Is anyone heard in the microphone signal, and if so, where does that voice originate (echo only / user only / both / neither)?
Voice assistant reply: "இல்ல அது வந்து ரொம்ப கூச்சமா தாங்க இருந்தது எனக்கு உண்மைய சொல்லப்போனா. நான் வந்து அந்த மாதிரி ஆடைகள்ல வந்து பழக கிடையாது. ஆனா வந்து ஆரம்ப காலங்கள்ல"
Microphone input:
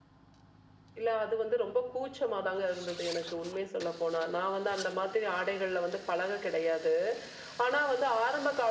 echo only